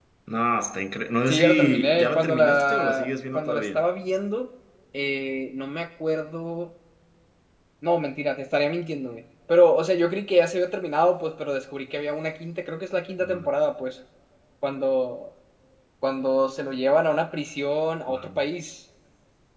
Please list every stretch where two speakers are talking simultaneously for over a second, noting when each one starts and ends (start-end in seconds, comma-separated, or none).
1.3-3.8